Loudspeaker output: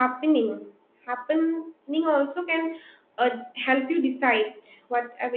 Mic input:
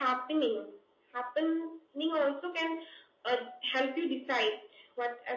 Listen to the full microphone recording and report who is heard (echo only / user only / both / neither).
echo only